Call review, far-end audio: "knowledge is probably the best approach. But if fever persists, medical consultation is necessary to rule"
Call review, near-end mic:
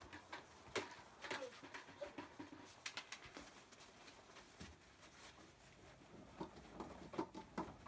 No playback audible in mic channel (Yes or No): Yes